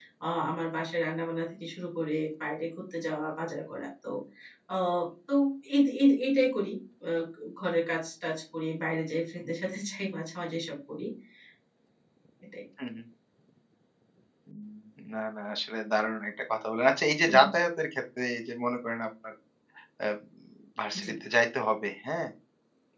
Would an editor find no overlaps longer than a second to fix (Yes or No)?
Yes